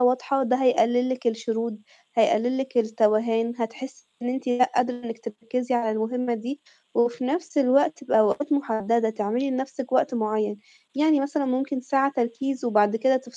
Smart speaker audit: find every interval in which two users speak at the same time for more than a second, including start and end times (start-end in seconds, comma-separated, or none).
none